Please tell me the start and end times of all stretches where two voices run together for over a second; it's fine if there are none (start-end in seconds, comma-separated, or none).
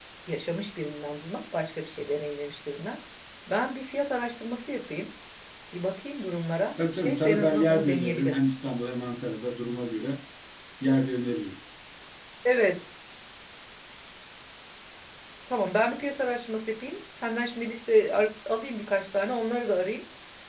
6.9-8.4